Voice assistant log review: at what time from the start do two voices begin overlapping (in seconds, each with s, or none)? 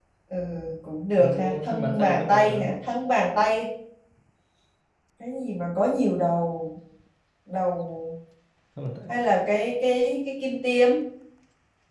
1.2 s